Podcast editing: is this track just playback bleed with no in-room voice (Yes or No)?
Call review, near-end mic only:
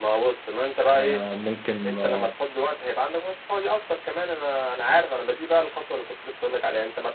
No